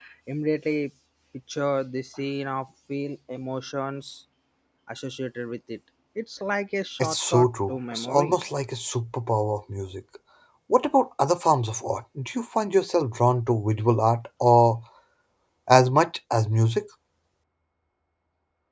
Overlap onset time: 7.0 s

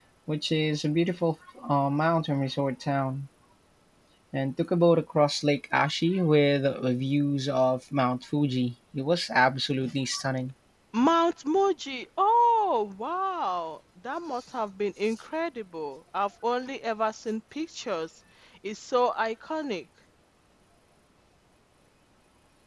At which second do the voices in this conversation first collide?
none

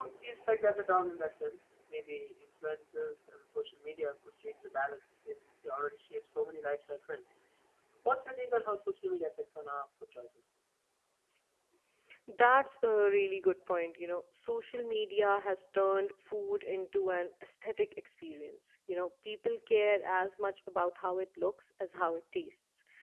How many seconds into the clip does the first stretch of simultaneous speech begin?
none

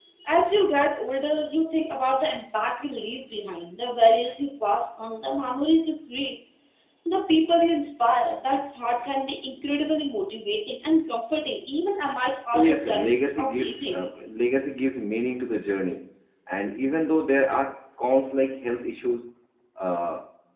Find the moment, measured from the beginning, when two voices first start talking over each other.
12.5 s

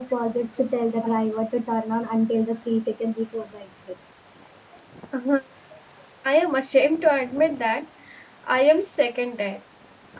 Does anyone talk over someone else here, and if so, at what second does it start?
none

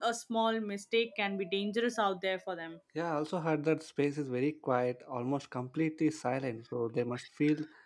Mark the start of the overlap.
none

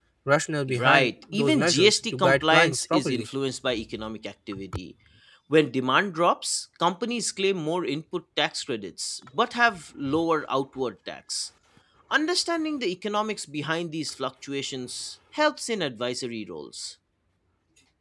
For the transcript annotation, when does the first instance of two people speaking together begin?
0.8 s

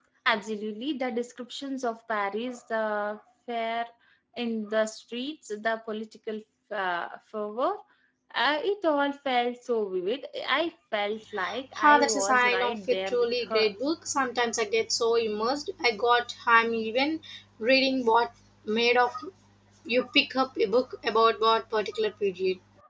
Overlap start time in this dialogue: 11.8 s

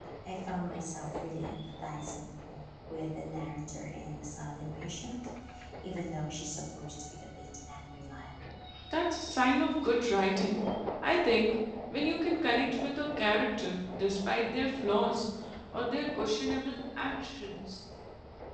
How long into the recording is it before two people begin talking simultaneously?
none

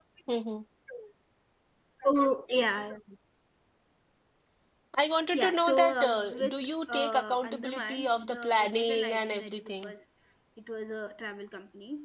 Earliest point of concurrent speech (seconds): 5.3 s

